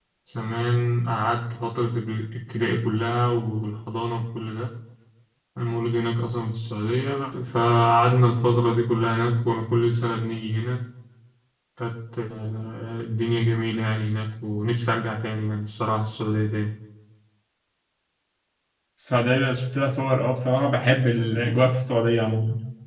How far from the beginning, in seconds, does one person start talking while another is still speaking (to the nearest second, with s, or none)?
none